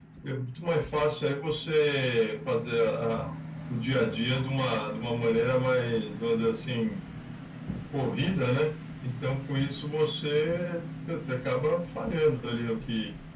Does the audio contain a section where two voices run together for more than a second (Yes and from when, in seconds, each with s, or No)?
No